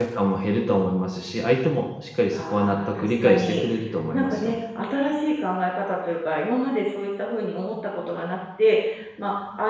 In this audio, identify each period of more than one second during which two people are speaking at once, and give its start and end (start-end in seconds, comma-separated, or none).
2.3-3.6